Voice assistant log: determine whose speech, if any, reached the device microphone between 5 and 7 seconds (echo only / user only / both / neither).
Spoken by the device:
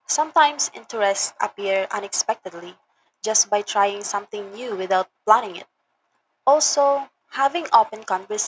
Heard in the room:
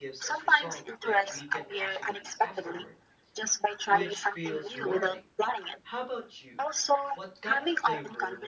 both